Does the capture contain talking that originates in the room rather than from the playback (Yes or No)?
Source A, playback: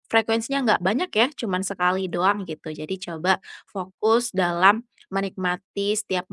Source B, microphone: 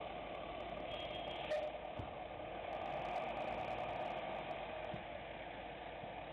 No